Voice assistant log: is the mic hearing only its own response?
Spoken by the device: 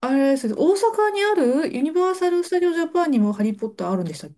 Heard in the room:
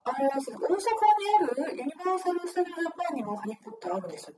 Yes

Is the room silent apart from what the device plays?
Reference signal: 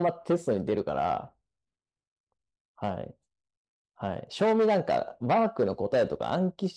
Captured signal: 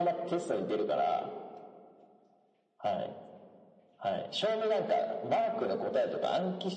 Yes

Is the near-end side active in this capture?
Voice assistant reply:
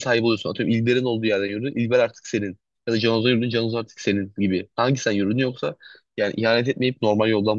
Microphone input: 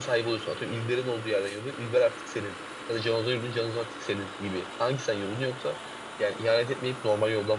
No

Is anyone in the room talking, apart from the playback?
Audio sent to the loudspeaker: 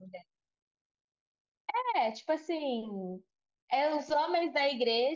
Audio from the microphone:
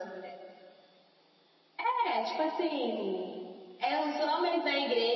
No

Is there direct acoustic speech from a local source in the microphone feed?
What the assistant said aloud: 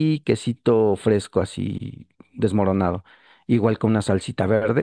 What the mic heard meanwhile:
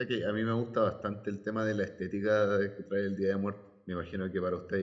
Yes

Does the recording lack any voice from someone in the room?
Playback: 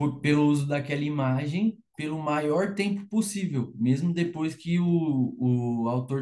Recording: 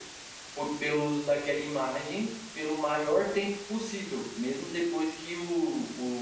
Yes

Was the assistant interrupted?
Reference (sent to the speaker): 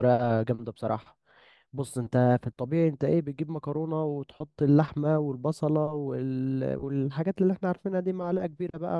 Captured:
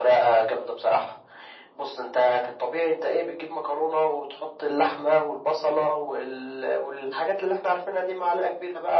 No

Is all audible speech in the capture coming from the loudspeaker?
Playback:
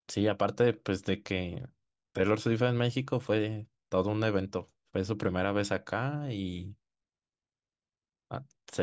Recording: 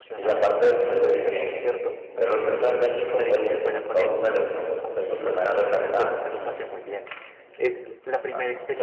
No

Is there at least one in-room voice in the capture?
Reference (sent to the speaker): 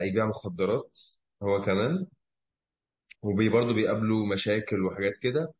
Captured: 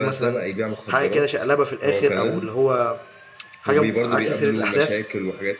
Yes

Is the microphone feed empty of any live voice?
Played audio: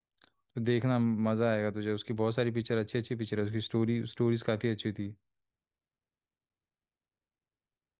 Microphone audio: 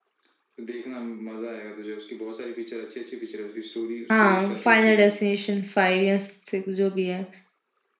No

